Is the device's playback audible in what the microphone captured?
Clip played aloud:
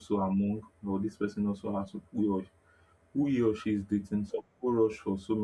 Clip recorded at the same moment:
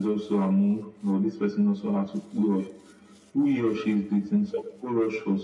Yes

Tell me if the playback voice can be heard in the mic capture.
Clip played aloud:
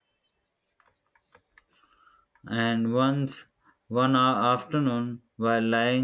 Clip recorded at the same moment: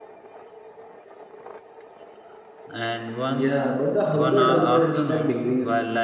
Yes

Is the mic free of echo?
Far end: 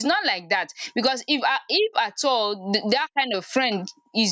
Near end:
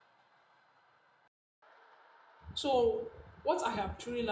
Yes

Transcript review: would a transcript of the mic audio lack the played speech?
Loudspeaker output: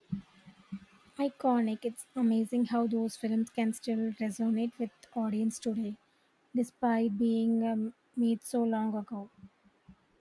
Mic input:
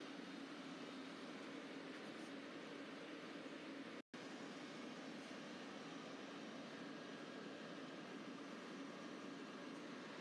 Yes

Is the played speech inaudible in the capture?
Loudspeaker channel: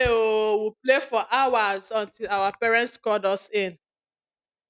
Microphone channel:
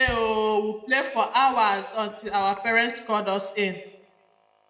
No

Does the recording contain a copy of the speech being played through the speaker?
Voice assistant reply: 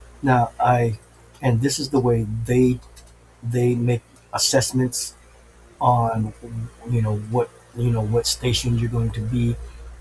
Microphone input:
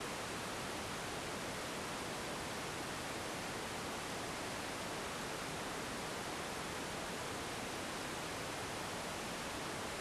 No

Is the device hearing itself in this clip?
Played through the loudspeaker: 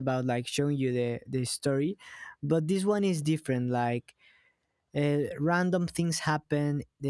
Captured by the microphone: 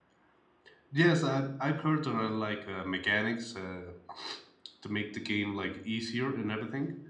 No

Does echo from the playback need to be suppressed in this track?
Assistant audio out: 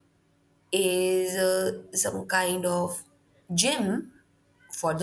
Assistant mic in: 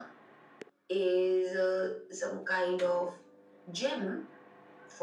Yes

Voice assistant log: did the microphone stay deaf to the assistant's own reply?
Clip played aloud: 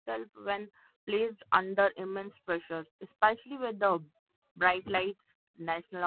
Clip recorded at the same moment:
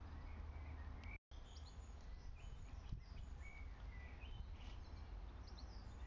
Yes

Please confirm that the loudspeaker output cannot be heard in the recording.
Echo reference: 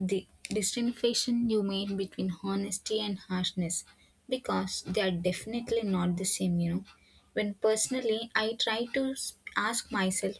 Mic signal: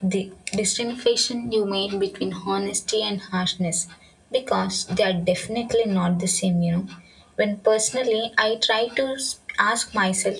No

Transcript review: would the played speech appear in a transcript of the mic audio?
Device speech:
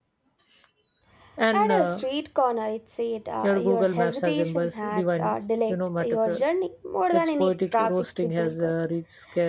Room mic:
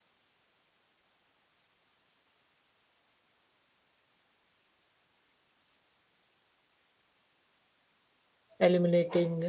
No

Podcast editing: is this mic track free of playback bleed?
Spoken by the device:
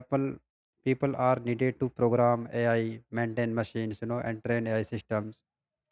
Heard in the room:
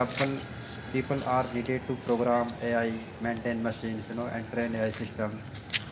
No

